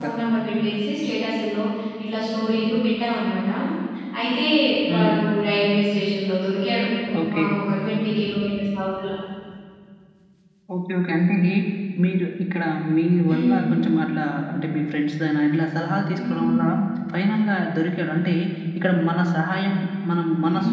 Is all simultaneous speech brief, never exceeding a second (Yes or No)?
Yes